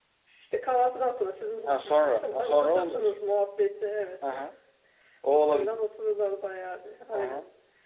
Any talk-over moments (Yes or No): Yes